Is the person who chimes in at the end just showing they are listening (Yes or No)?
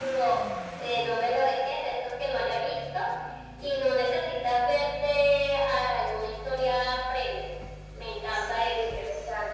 No